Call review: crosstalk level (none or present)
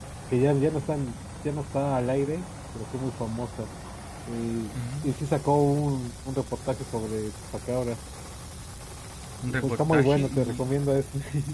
present